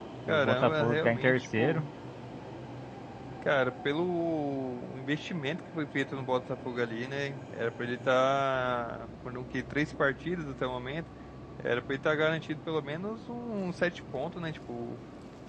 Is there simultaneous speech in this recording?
Yes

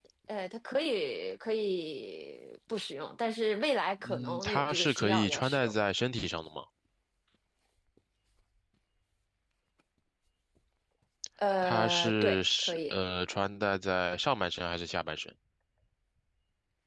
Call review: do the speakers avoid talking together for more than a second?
No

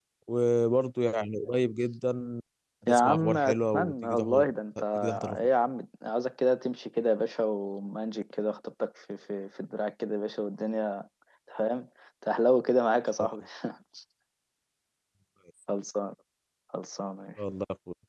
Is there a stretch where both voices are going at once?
Yes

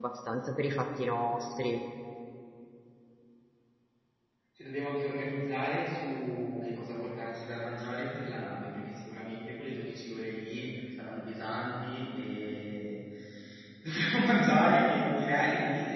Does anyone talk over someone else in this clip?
No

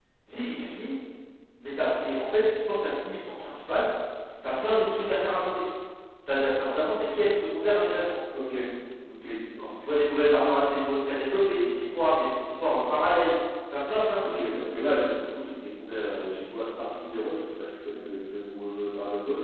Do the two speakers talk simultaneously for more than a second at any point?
No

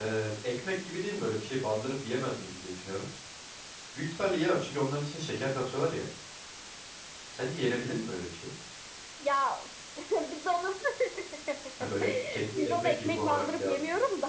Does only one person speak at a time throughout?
No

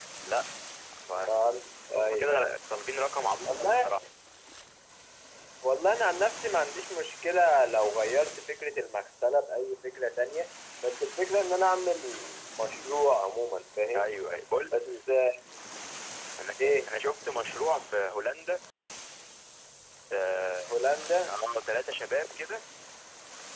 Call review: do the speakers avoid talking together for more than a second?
Yes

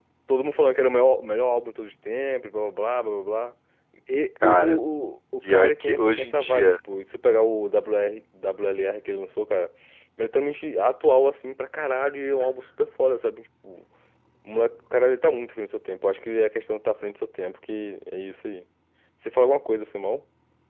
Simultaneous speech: Yes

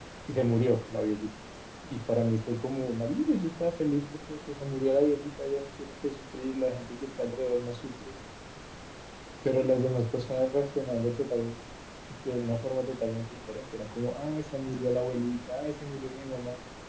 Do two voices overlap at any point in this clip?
No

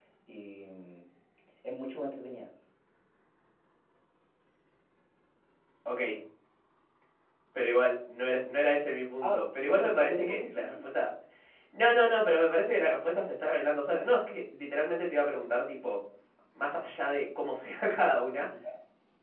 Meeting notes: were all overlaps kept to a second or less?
No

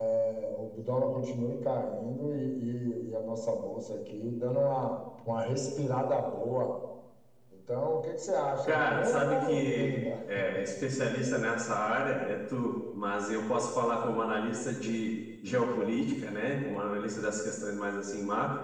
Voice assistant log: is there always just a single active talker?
No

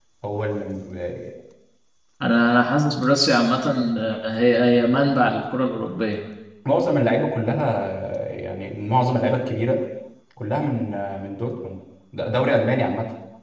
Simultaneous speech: No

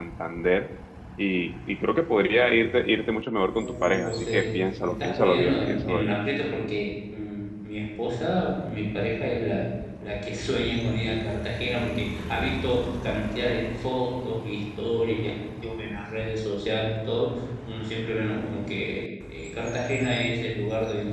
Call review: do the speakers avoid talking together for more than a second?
No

